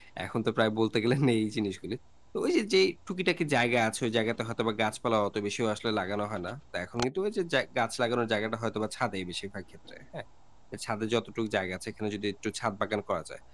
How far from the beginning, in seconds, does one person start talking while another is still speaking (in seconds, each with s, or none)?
none